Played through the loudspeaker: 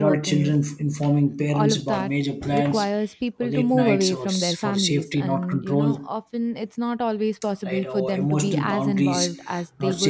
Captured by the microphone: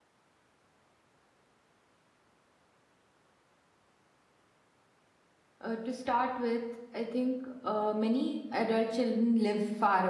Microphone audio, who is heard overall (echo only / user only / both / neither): user only